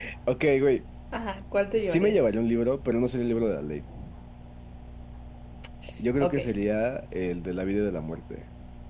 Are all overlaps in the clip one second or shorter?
Yes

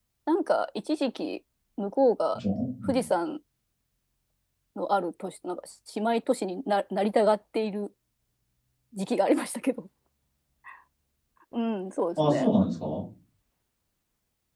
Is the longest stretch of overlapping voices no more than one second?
Yes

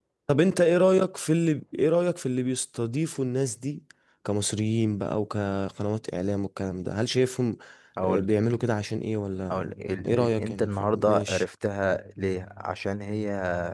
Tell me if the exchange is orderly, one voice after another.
No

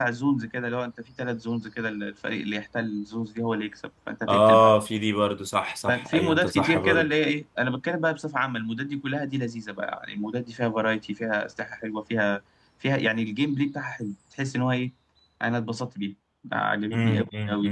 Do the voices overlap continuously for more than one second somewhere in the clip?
Yes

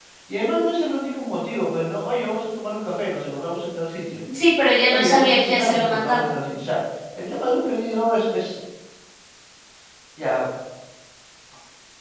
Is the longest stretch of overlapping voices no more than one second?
No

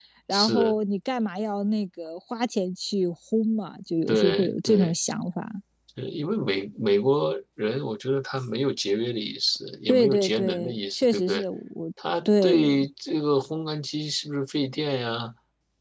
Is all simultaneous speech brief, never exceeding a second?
No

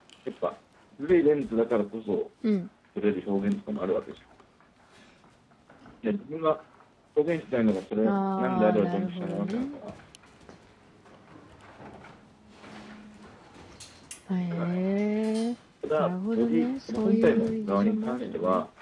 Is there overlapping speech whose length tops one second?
Yes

